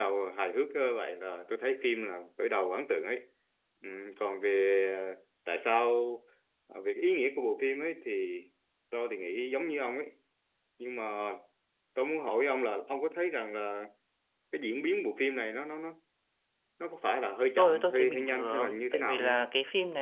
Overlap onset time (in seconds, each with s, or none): 17.6 s